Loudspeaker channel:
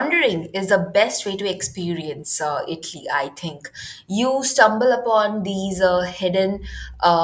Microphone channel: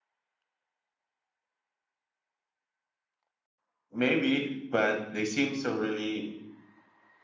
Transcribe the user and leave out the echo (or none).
Maybe, but they seem so really